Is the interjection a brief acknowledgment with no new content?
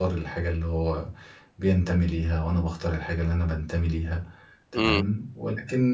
Yes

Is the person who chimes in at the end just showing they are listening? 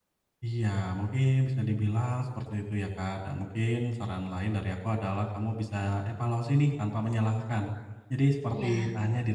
Yes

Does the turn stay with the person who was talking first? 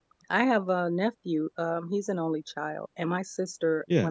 Yes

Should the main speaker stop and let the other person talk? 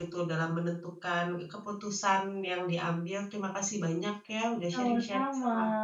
Yes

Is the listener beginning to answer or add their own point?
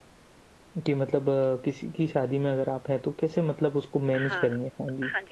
Yes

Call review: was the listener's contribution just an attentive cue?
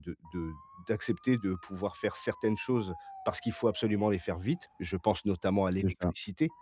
Yes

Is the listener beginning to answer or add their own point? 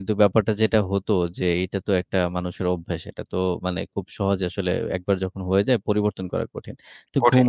No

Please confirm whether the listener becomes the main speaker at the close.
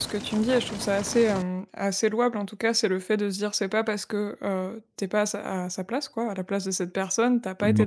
No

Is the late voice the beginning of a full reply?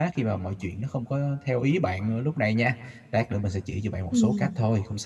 No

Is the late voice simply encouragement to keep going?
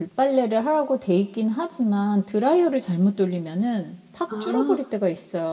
Yes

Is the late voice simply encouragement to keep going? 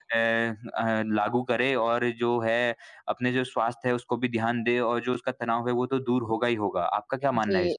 No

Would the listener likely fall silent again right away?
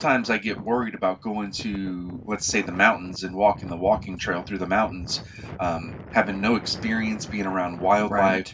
Yes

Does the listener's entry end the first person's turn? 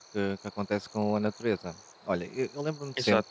No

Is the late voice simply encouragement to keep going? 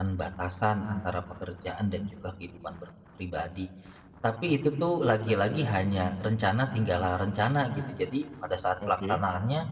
Yes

